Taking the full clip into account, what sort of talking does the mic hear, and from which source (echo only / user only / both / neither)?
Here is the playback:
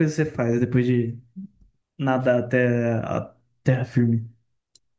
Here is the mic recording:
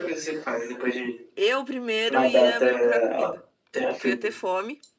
both